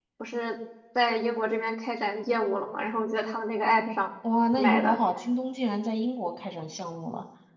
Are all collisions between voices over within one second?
Yes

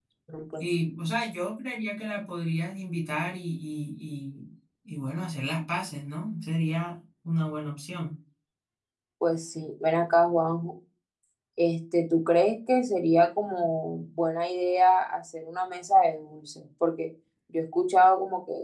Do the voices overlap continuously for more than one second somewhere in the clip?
No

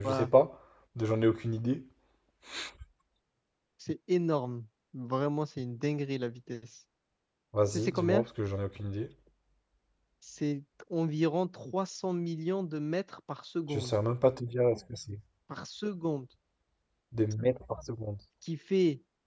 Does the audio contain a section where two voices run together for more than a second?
No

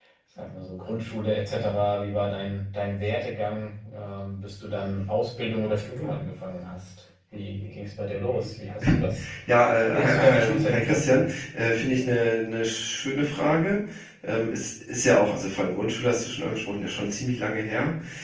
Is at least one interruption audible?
Yes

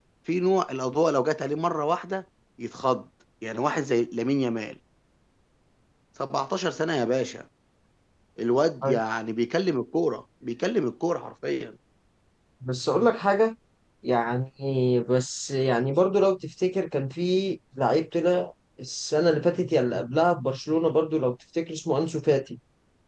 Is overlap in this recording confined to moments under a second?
Yes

